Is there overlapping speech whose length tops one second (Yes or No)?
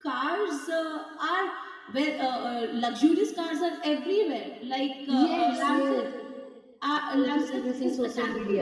Yes